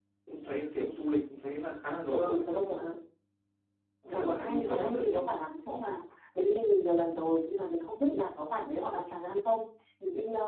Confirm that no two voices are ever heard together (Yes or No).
No